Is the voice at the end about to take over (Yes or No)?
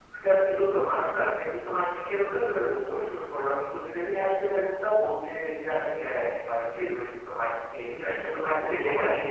Yes